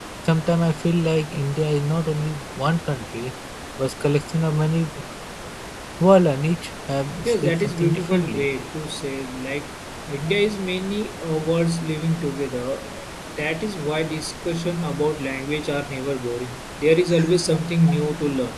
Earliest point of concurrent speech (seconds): 7.2 s

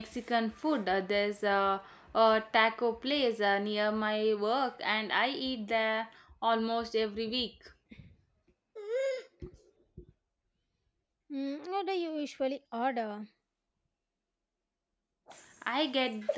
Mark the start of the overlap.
none

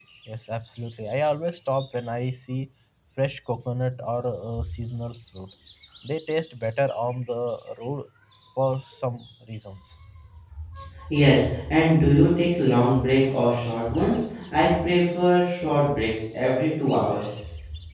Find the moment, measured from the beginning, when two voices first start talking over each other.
none

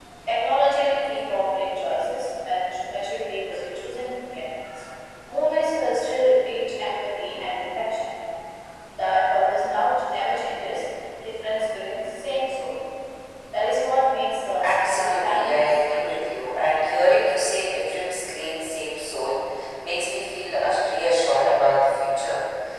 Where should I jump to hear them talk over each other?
14.6 s

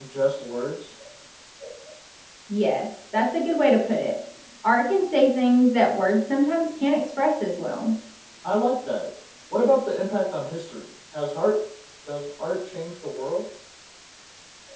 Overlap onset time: none

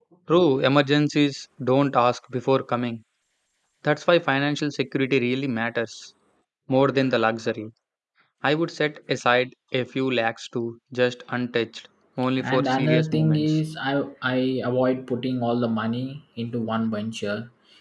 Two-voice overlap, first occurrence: 12.4 s

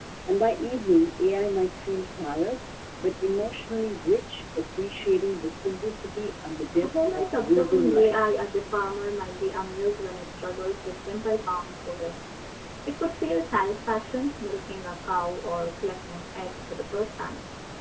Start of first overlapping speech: 6.7 s

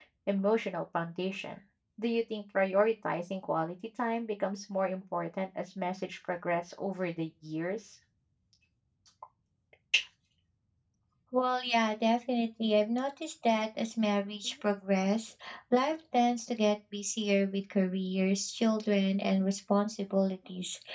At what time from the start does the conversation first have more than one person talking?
none

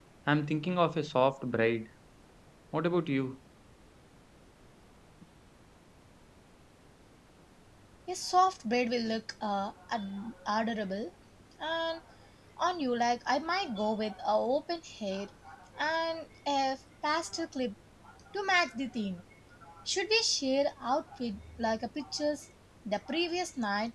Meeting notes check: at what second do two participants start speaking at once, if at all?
none

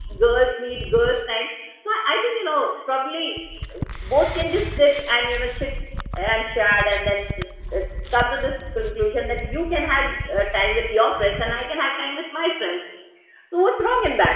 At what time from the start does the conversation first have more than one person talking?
none

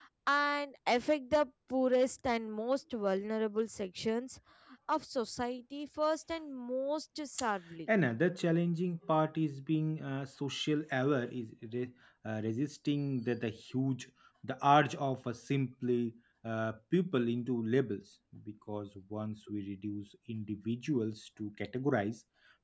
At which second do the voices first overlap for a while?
none

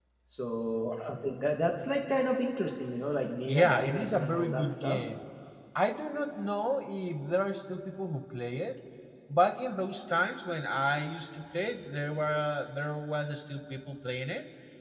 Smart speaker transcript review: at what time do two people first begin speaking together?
3.4 s

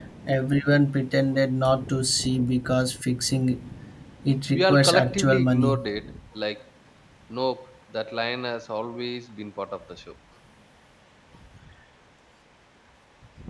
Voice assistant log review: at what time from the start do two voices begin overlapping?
4.5 s

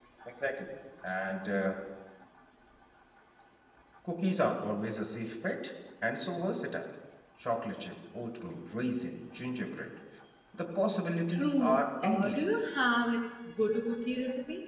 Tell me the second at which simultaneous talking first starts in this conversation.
11.3 s

